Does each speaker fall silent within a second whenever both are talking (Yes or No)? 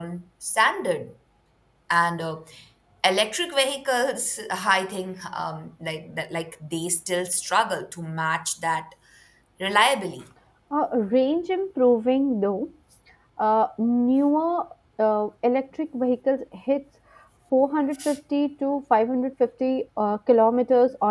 Yes